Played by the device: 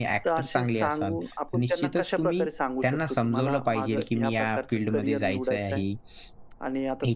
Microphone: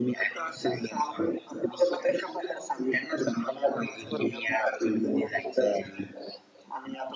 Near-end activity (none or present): present